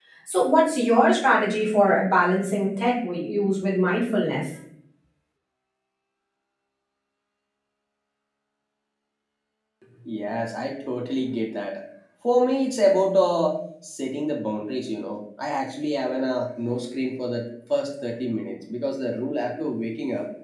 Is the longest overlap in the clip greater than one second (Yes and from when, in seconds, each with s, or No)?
No